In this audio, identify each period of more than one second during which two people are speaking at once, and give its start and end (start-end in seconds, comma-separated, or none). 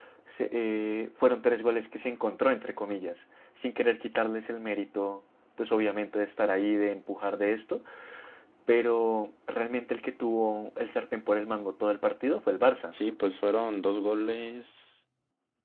none